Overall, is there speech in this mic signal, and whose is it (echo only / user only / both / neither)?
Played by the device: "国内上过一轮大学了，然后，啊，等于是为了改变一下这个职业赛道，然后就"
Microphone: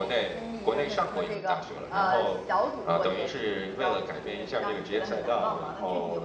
both